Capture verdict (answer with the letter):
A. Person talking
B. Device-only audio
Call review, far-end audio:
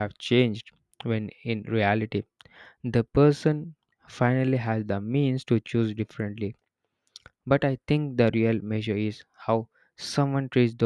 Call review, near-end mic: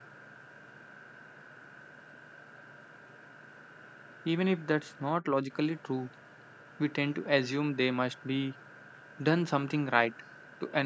A